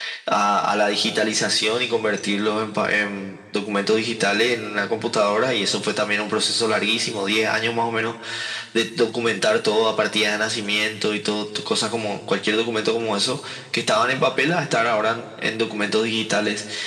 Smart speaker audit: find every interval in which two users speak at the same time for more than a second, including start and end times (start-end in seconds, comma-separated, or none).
none